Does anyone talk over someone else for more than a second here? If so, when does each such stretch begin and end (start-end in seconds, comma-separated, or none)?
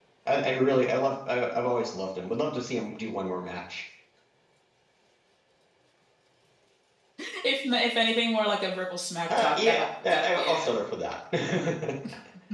9.4-10.7